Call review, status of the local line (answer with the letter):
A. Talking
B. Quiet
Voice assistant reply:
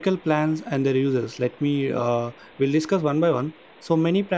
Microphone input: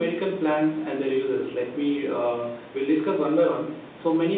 B